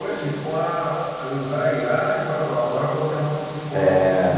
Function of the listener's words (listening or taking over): listening